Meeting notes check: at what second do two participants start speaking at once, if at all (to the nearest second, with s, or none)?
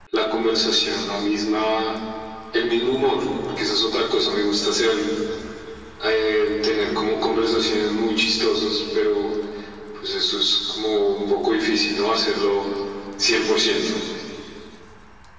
none